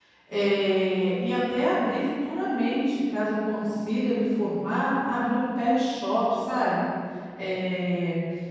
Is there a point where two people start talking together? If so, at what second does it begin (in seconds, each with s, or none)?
none